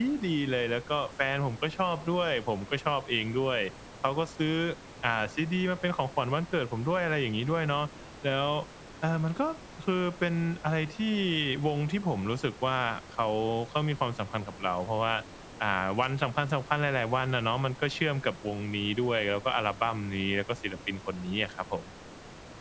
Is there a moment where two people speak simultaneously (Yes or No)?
No